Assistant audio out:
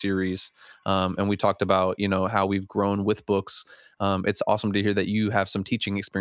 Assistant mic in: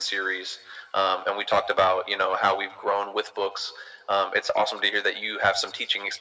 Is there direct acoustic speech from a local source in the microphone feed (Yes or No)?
No